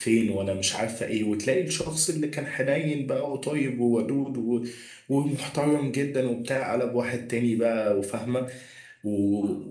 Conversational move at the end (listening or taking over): listening